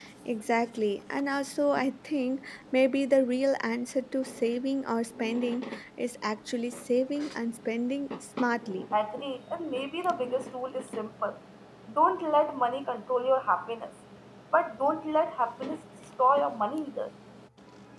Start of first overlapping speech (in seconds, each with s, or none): none